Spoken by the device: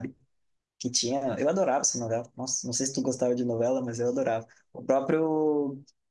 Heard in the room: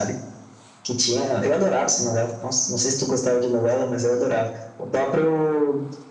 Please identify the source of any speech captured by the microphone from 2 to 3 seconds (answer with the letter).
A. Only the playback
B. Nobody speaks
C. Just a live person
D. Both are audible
A